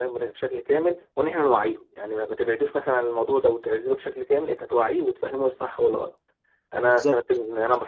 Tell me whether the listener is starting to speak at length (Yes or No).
No